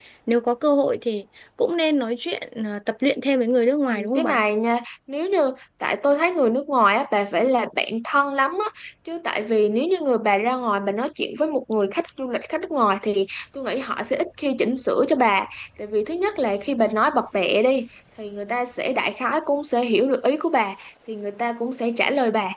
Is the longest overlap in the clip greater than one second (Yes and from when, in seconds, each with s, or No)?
No